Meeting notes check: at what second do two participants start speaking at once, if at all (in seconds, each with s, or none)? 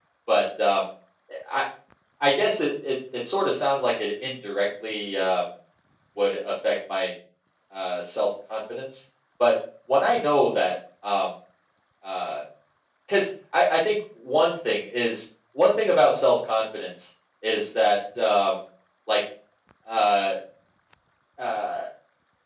none